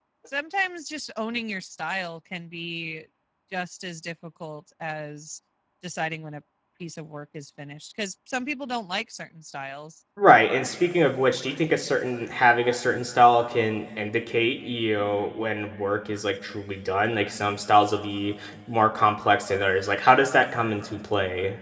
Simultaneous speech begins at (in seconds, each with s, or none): none